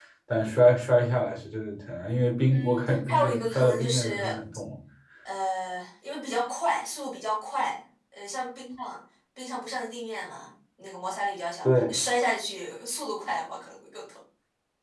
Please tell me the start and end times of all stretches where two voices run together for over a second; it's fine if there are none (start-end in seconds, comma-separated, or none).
2.5-4.2